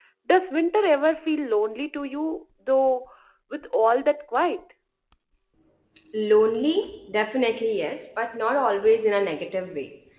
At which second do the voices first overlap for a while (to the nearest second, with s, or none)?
none